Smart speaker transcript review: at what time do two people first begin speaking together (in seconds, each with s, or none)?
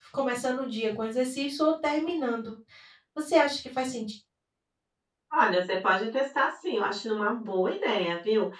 none